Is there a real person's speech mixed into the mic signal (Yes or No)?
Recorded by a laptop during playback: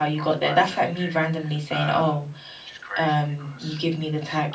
Yes